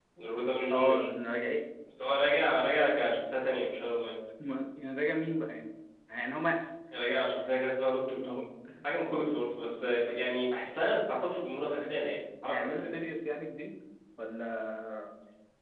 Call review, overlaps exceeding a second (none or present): none